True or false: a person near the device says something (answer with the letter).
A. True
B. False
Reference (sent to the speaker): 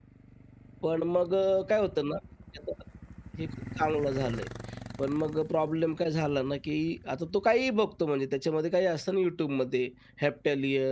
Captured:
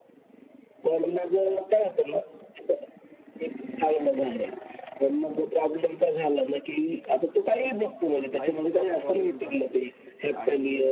A